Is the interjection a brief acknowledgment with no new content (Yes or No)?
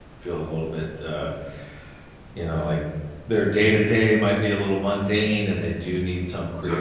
Yes